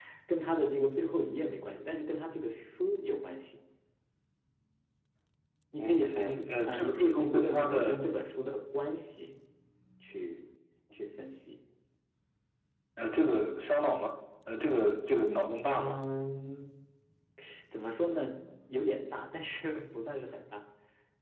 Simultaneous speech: Yes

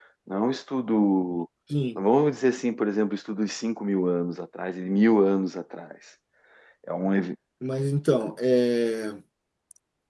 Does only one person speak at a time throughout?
Yes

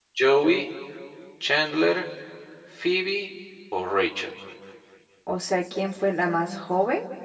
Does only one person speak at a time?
Yes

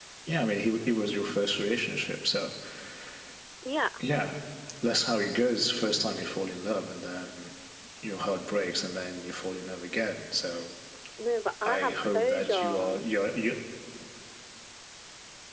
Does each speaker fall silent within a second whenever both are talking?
No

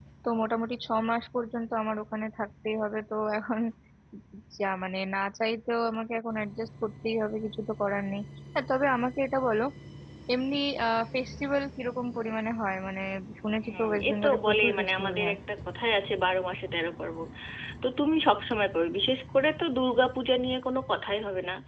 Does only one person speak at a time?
No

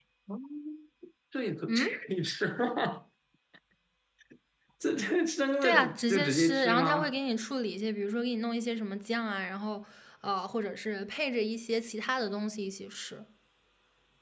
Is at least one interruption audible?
Yes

